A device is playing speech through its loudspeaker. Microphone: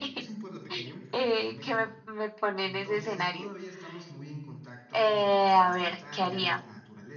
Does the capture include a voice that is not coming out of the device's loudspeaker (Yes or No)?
Yes